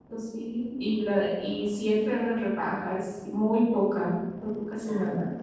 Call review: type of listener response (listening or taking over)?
taking over